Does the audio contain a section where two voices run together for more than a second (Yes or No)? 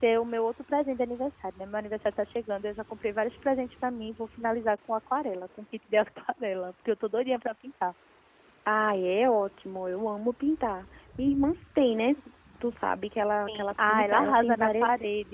Yes